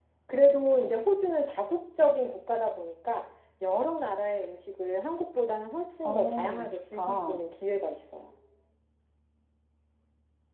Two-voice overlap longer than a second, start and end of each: 6.0-7.4

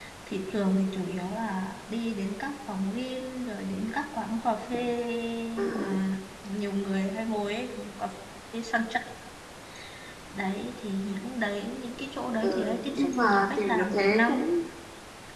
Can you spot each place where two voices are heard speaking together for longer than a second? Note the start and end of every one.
12.4-14.5

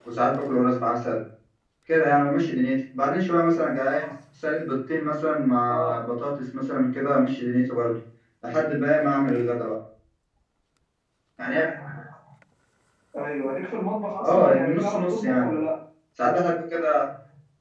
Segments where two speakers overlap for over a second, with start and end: 14.2-15.5

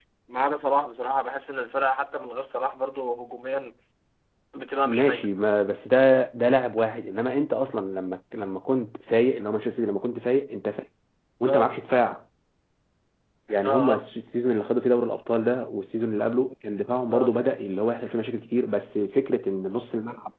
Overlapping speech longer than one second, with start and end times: none

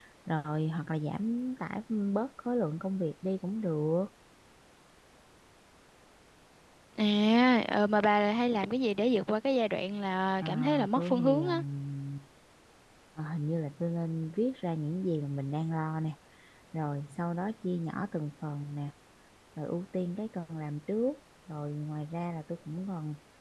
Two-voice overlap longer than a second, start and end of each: 10.4-11.6

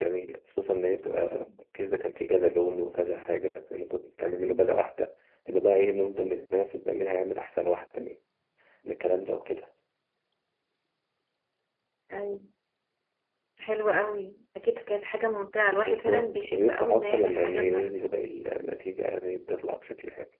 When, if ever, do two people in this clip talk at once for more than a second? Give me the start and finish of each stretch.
15.8-18.2

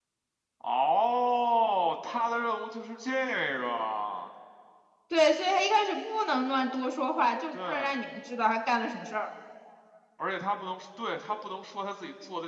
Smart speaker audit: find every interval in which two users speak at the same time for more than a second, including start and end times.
none

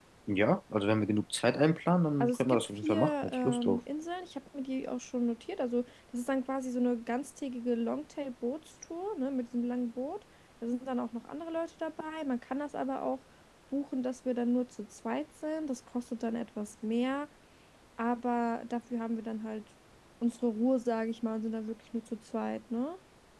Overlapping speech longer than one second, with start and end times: 2.2-3.8

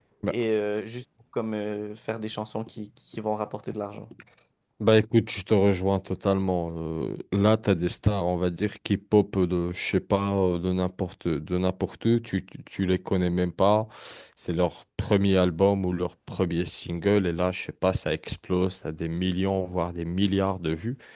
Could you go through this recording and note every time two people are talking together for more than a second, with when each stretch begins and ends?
none

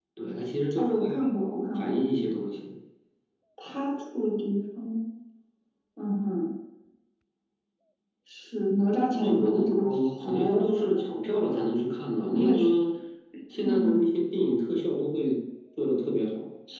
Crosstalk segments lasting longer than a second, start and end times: 9.2-11.0

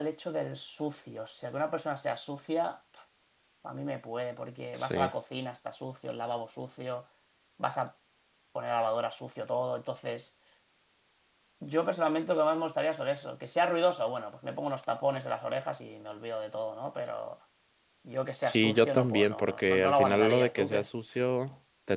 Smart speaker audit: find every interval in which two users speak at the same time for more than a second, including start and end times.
18.4-20.8

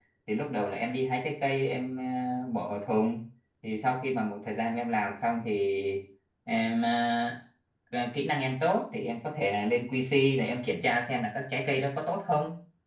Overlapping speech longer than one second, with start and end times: none

